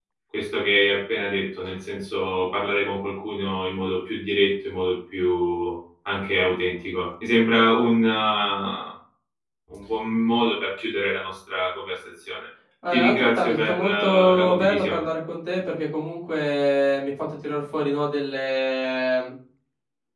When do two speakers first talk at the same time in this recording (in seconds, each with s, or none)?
12.8 s